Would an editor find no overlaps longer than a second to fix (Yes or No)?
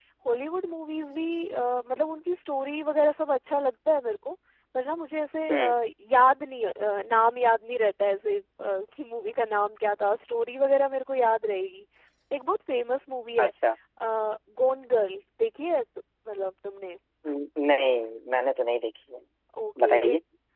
Yes